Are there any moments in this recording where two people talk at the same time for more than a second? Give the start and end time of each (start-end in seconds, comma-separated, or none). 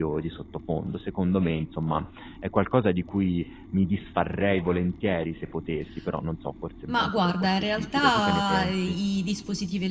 6.9-9.0